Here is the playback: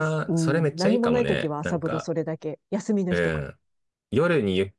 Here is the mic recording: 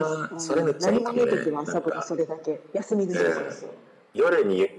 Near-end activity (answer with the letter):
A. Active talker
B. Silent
A